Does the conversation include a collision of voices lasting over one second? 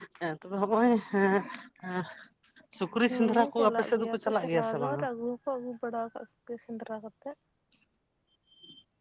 Yes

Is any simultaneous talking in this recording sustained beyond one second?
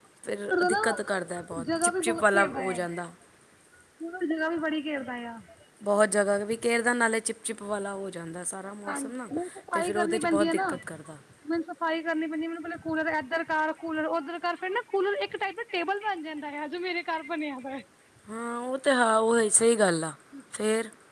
Yes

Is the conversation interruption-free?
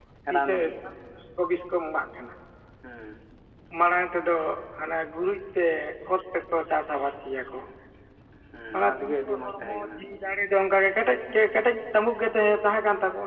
No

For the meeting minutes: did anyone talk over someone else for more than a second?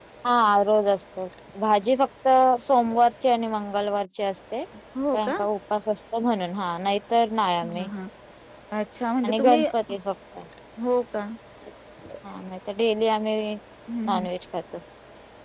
No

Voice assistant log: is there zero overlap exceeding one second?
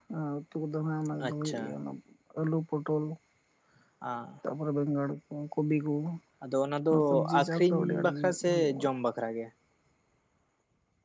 No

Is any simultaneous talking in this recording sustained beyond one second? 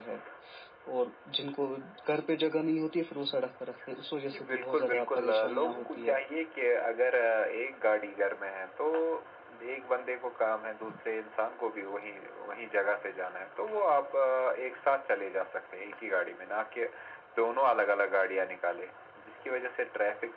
Yes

